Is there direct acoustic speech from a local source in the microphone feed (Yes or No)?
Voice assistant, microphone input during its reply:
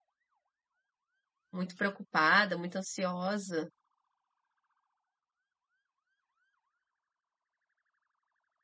Yes